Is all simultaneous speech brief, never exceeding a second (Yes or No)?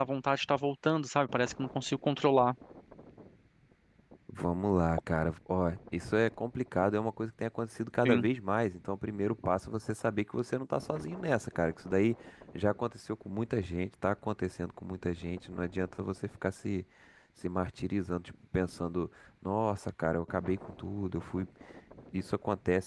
Yes